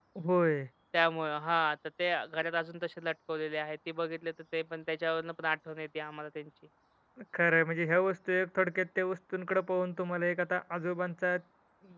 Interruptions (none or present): none